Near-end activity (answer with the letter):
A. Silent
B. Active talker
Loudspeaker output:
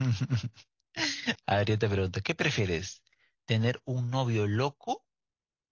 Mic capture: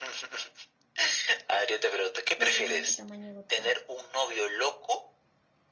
B